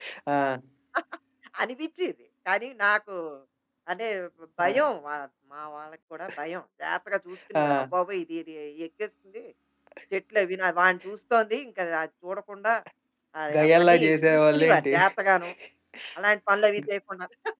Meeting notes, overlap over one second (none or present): present